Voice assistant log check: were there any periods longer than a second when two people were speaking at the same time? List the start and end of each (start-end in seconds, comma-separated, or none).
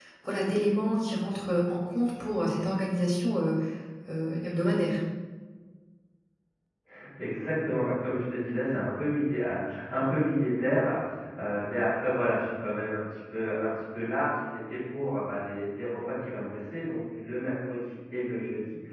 none